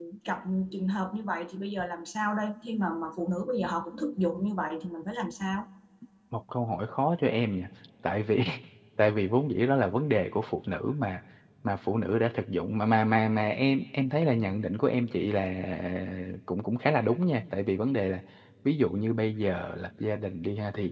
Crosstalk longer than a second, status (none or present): none